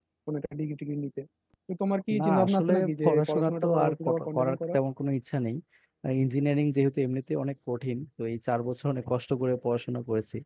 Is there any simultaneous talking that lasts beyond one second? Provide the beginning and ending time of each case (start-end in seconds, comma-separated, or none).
2.2-4.8